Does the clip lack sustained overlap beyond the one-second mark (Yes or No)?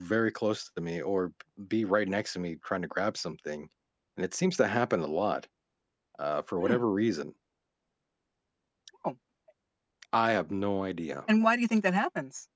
Yes